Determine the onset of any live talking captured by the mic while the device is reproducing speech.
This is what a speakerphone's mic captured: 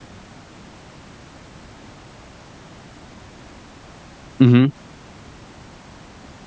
4 s

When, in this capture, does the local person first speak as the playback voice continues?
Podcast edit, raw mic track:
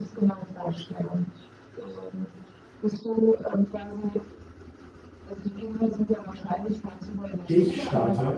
7 s

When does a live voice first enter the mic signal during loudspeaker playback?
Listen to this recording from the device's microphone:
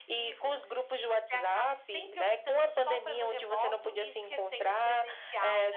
none

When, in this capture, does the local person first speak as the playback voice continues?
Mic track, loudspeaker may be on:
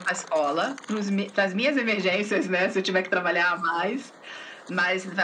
none

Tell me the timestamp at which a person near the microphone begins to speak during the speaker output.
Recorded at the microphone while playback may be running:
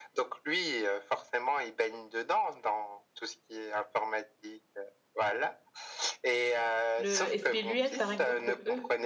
7 s

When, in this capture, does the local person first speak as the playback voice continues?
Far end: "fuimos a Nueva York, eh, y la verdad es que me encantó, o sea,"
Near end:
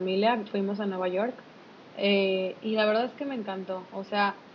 none

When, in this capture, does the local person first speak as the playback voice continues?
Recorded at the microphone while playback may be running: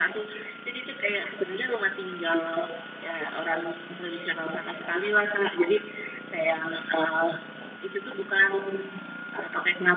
none

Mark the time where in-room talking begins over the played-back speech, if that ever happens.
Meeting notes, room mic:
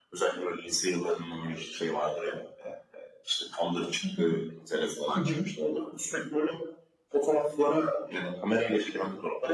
4 s

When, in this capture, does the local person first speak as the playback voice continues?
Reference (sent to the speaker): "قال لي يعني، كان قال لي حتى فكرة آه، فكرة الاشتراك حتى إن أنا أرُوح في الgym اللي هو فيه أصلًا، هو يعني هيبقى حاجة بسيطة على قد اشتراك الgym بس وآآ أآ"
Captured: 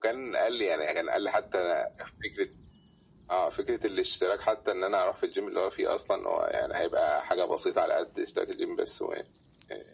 none

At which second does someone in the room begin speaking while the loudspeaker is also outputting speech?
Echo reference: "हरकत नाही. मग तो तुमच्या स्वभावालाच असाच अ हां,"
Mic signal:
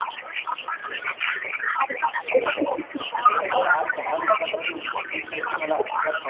2 s

